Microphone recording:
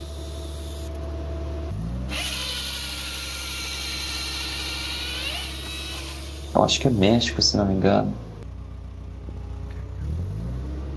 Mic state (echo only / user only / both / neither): user only